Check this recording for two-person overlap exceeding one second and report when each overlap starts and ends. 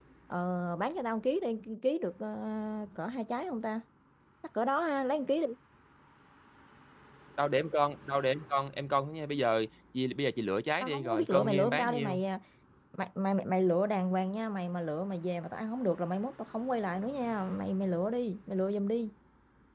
10.8-12.2

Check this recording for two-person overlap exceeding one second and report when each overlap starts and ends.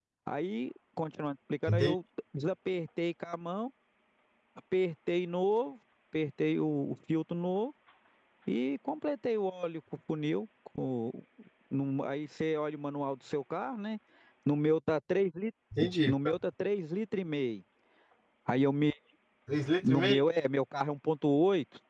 none

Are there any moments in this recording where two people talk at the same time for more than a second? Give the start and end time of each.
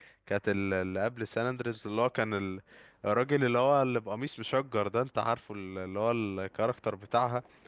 none

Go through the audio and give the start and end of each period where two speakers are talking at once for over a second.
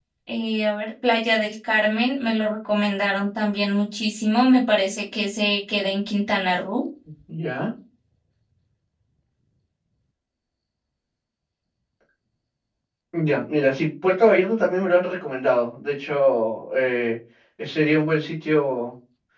none

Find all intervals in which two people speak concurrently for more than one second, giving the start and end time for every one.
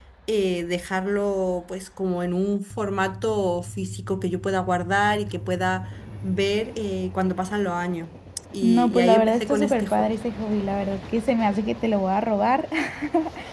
8.6-10.1

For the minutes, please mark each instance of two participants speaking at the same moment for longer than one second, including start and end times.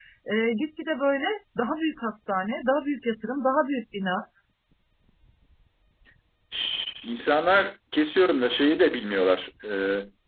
none

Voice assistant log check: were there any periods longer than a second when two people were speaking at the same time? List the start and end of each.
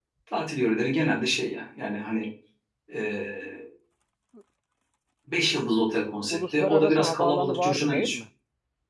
6.3-8.2

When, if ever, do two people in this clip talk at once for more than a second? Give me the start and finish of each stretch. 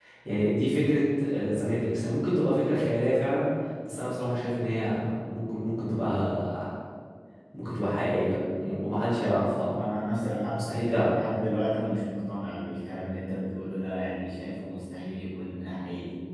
none

